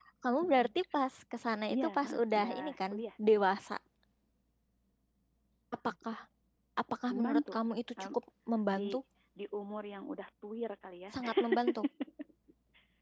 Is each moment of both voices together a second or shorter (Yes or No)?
No